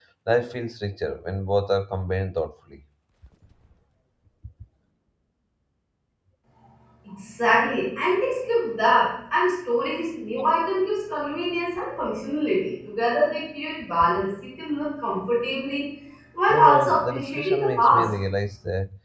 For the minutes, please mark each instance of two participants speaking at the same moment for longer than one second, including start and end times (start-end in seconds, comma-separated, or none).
16.5-18.1